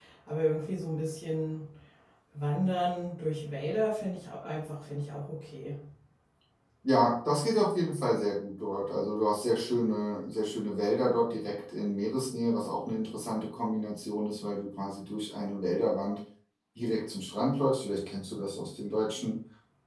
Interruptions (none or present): none